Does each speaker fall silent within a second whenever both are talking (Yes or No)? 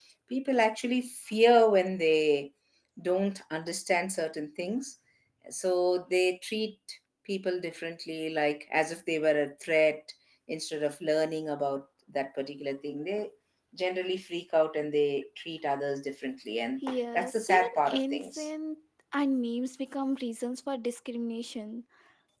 No